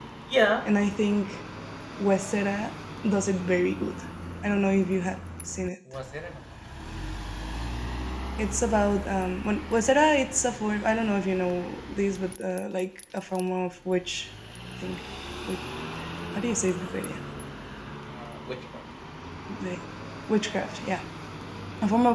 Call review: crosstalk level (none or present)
none